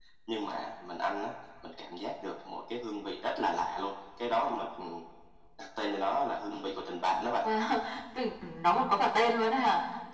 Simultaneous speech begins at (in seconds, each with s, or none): none